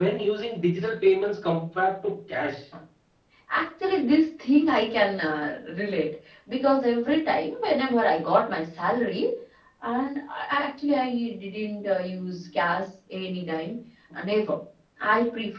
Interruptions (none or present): none